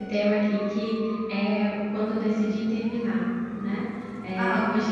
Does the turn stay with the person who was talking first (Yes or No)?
Yes